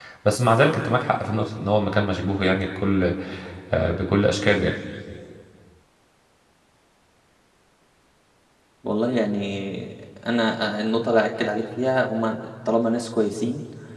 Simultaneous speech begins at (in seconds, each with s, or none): none